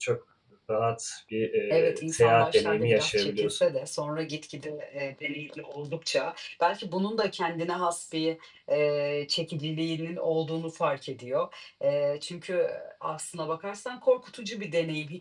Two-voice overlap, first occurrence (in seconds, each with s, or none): 1.7 s